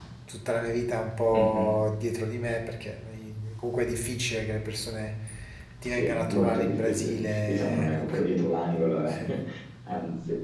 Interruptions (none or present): present